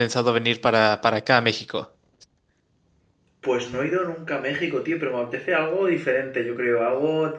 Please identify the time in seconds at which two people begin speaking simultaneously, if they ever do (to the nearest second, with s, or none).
none